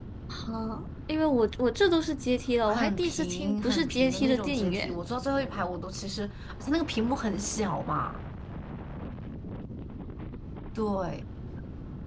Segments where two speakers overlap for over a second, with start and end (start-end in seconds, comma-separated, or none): 2.6-4.9